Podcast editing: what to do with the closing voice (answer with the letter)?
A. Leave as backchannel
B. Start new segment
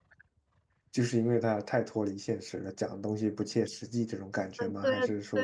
B